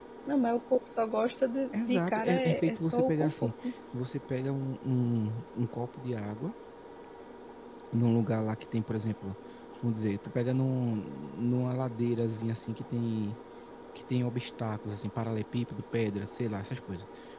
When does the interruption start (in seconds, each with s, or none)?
1.7 s